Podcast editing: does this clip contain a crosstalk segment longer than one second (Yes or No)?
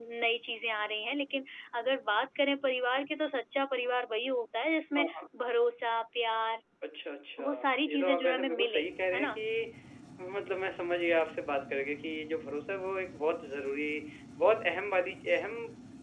Yes